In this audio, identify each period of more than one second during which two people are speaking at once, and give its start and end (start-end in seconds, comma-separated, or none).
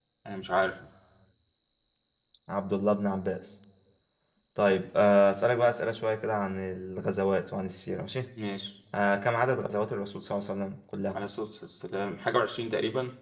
none